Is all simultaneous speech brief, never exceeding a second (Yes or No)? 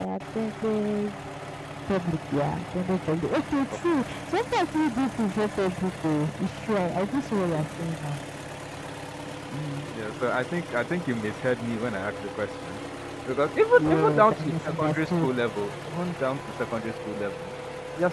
No